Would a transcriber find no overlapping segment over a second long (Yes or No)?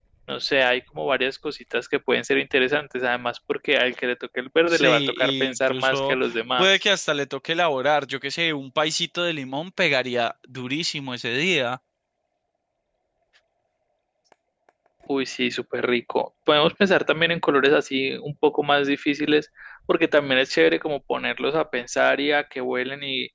No